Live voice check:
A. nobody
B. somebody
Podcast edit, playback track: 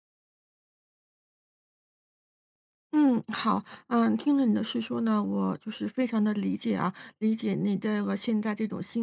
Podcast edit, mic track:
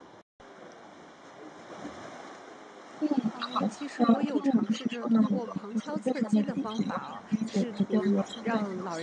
B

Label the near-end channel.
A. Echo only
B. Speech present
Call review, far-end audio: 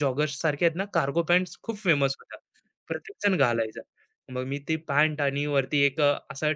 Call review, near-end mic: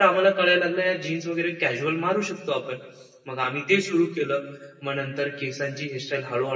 B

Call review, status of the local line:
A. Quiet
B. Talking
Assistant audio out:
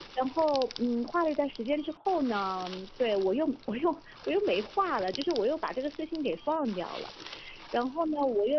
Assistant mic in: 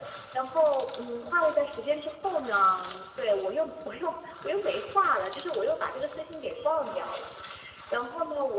A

